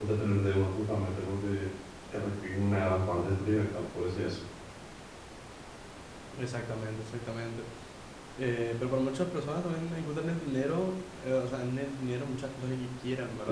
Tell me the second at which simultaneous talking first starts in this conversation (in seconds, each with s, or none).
none